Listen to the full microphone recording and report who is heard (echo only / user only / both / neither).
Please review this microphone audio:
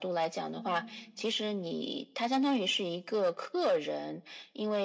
both